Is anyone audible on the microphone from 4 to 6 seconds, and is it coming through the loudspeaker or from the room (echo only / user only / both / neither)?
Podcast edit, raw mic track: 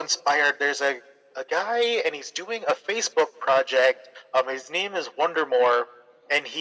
echo only